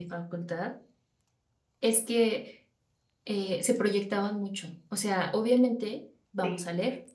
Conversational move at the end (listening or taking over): listening